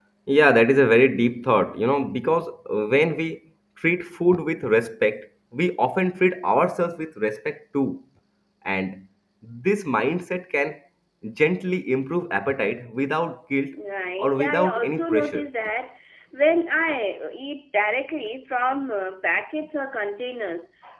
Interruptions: present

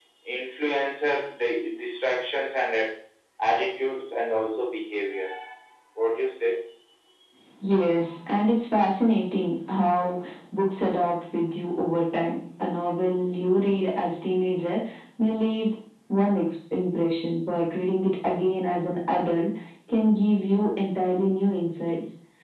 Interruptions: none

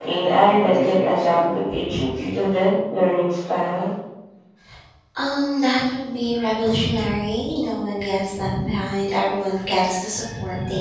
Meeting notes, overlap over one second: none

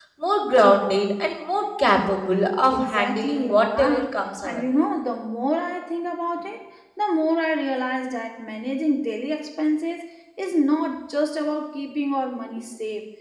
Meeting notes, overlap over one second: present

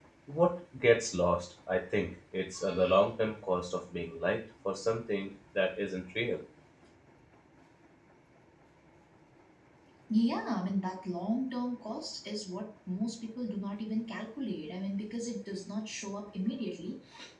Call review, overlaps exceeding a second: none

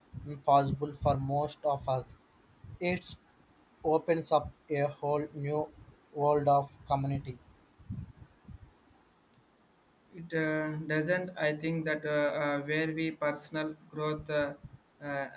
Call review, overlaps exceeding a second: none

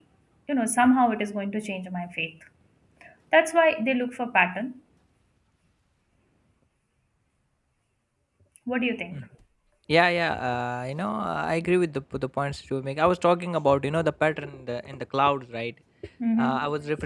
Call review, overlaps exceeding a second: none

